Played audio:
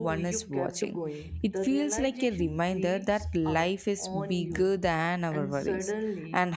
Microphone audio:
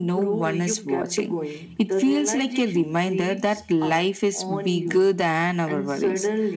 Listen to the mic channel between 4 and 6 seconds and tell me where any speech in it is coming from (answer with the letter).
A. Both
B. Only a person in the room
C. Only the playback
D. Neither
C